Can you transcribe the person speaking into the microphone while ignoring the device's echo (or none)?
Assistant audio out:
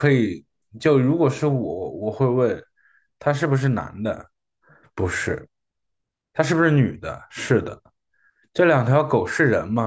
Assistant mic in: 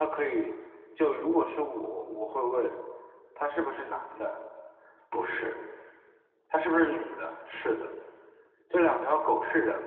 none